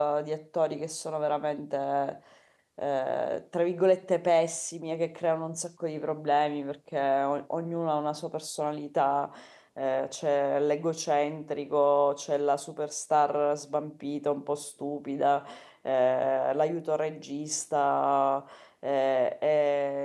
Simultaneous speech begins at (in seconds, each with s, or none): none